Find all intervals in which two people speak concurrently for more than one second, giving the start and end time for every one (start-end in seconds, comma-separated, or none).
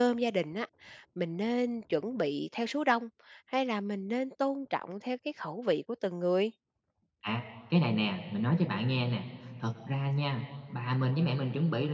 none